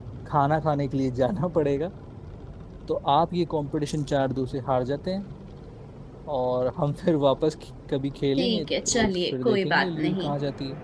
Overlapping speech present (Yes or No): Yes